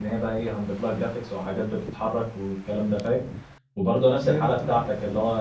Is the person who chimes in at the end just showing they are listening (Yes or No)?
Yes